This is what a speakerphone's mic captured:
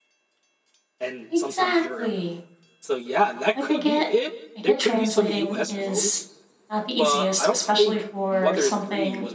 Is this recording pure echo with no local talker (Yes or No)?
No